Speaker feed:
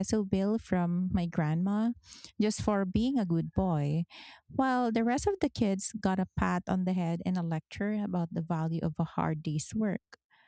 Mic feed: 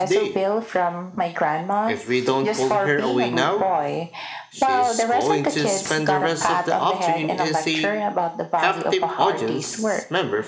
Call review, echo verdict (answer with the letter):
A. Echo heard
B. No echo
A